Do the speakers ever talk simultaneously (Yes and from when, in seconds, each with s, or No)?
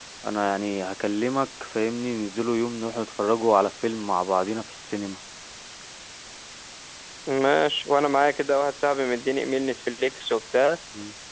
No